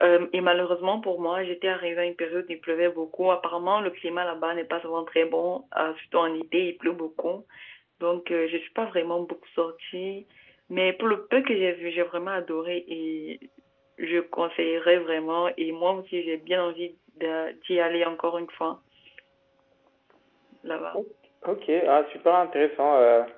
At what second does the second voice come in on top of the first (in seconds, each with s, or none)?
none